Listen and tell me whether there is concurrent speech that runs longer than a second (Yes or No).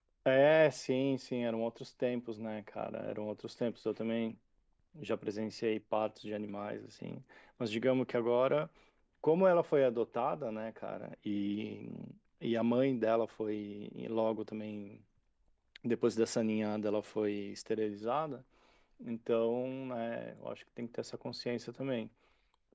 No